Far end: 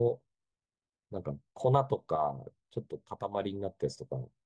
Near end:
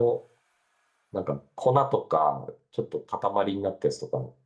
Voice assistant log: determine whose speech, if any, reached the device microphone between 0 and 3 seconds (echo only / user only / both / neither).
echo only